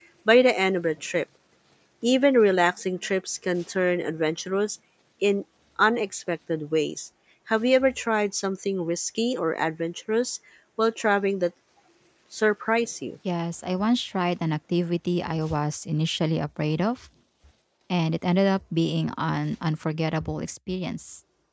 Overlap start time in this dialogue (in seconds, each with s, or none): none